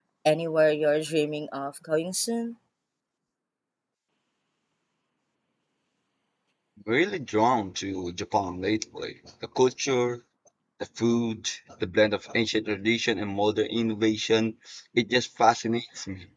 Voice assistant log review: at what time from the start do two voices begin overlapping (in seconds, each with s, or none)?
none